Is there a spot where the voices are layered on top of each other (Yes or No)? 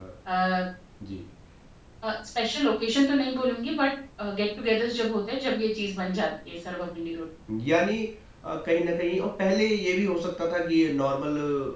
No